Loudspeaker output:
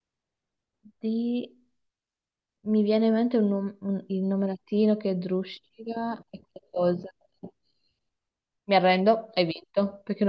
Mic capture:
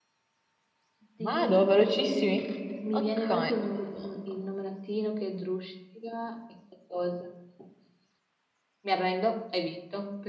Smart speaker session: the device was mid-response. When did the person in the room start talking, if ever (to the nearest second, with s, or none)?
1 s